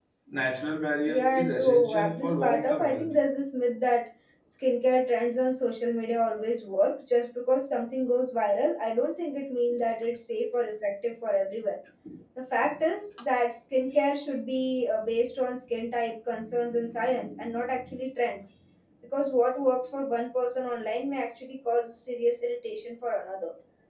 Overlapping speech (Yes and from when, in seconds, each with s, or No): Yes, from 1.1 s